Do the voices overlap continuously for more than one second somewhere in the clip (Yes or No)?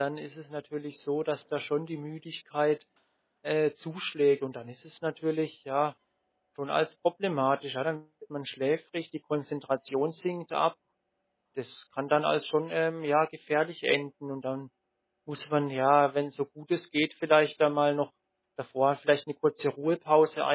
No